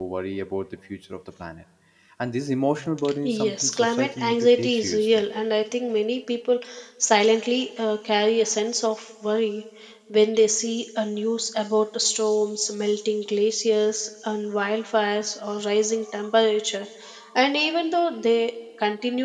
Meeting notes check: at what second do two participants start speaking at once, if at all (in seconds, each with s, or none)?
3.2 s